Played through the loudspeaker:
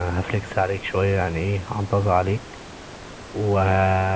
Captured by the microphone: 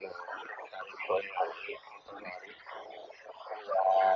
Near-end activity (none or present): none